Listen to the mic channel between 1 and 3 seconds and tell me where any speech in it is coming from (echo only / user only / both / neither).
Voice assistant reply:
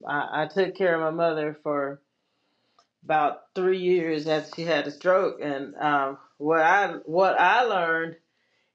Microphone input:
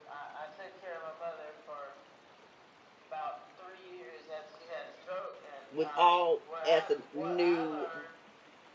echo only